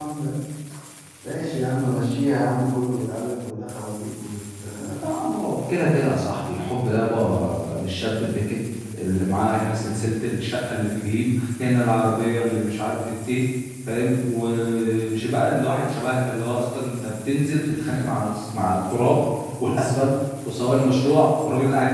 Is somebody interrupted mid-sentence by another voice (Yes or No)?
No